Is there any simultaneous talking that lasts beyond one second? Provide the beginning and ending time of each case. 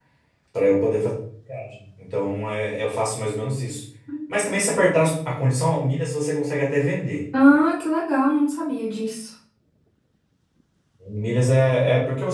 none

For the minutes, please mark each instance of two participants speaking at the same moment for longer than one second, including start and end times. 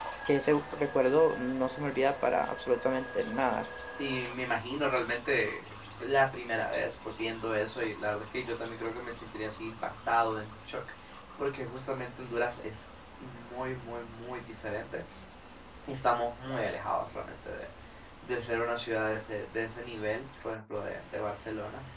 none

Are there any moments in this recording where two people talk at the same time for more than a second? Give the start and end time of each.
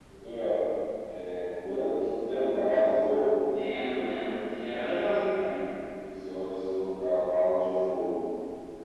none

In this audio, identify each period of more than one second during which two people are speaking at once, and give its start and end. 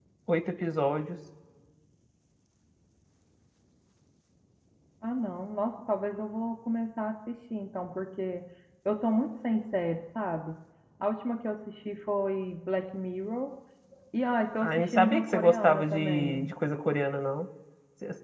14.6-16.4

